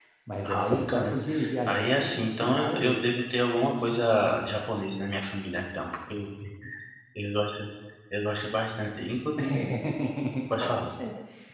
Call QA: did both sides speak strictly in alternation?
No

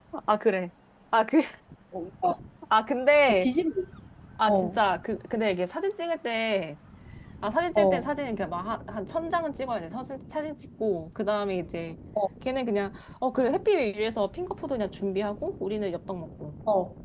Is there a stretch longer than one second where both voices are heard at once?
No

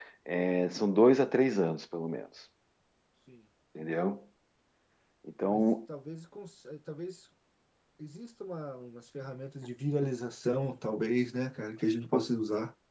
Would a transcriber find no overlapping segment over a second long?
Yes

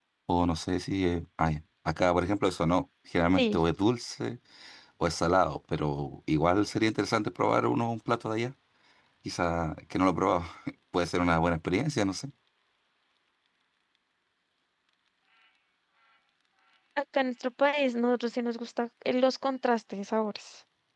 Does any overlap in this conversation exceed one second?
No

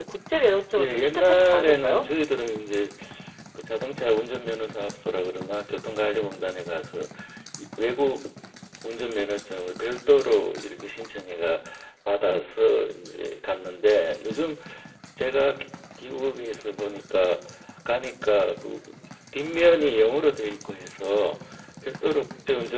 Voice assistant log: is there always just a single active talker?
No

